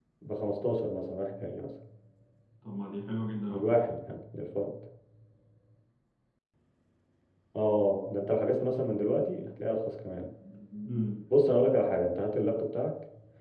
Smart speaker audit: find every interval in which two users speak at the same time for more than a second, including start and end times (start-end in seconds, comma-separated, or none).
none